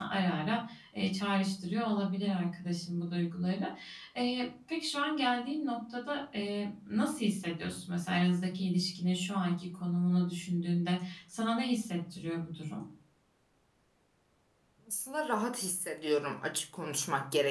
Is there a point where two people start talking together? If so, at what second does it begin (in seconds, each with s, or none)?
none